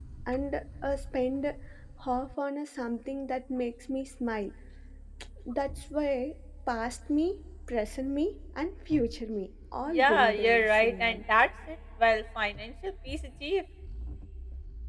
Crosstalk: present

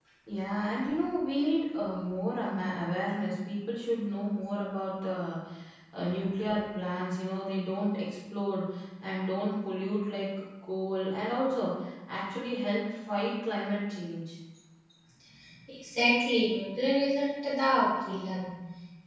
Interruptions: none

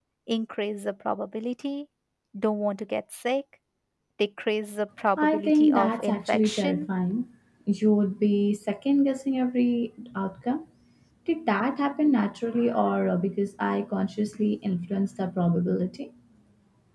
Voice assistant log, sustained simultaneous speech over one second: present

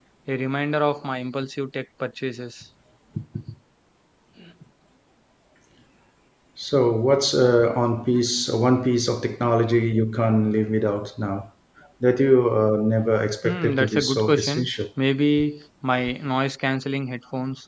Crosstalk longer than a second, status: present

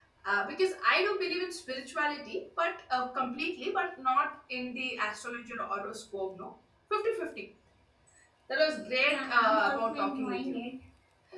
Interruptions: present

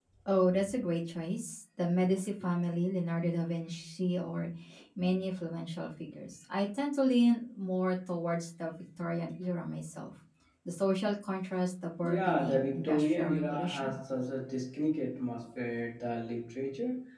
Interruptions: present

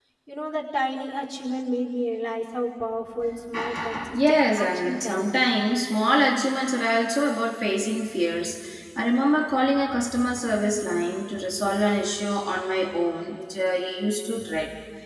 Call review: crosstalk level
present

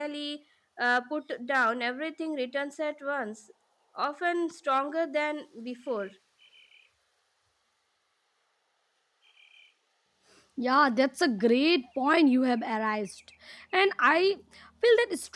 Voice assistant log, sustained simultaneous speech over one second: none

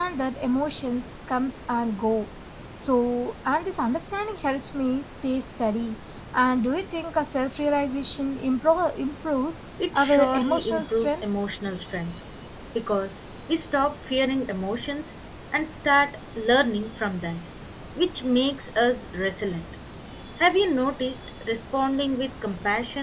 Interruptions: present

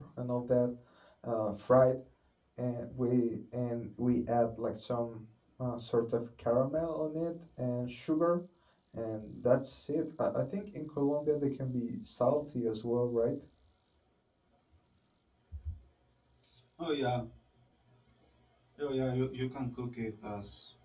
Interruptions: none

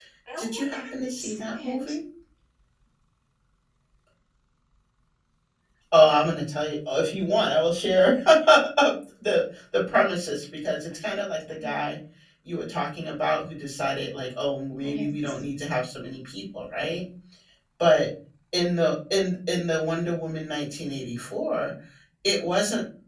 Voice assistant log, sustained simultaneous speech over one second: present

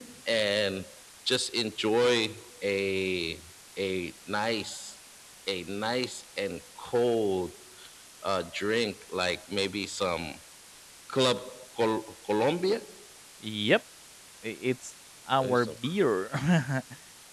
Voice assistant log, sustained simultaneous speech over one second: none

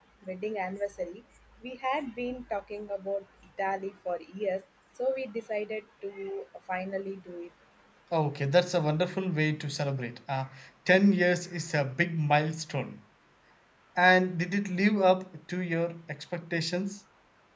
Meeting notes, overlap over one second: none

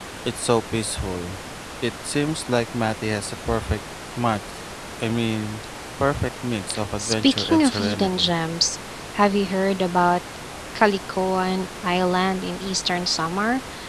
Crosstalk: present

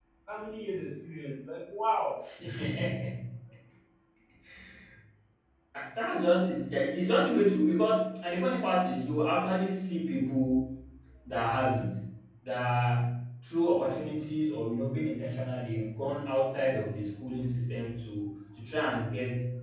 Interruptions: none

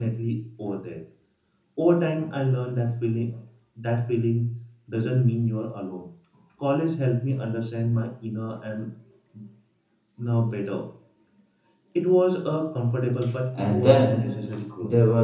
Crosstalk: present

